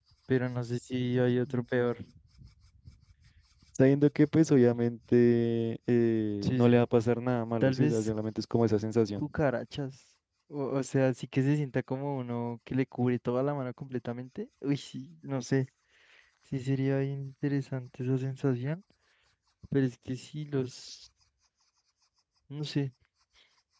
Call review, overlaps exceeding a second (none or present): none